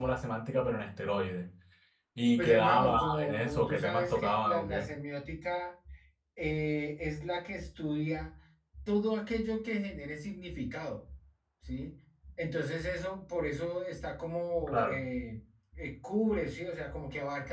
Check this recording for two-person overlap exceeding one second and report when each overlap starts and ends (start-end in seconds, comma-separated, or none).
2.4-4.9